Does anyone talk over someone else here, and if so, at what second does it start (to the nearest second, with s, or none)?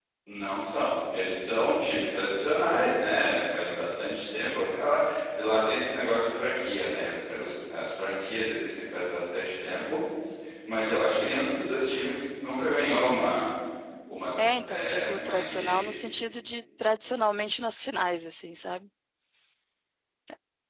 15 s